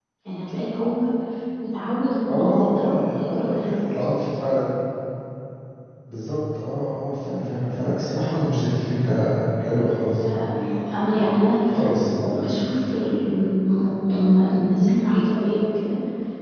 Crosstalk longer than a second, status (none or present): present